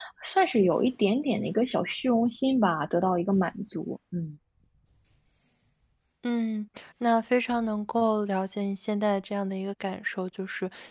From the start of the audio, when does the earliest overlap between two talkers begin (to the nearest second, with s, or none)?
none